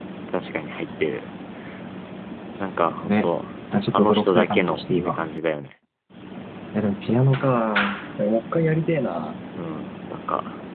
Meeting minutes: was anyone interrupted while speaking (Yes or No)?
Yes